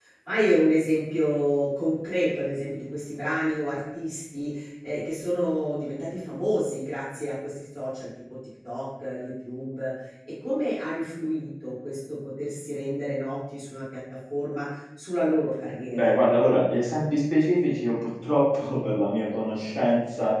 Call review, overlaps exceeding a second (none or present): none